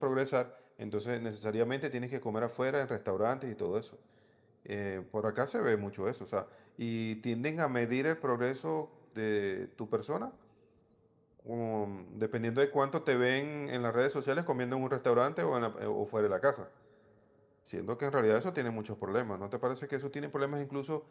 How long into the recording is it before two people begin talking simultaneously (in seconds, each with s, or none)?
none